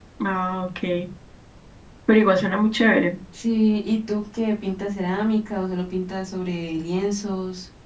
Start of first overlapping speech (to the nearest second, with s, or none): none